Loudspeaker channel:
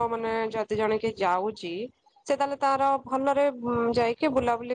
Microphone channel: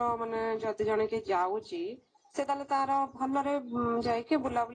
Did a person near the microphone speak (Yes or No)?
No